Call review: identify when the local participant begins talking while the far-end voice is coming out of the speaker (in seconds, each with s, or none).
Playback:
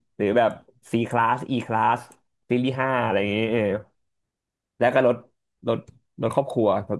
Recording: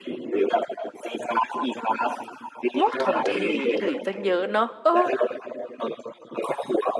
2.8 s